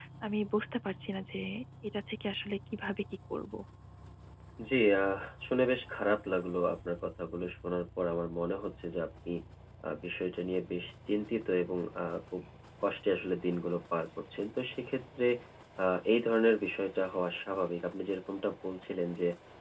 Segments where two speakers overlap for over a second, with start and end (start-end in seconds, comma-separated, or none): none